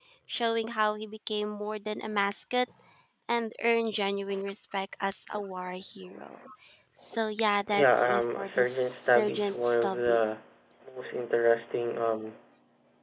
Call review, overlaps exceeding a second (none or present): present